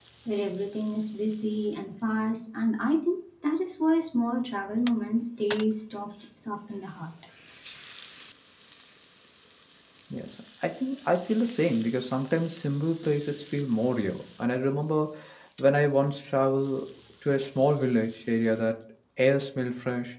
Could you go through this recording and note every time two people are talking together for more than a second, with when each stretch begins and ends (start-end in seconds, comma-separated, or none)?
none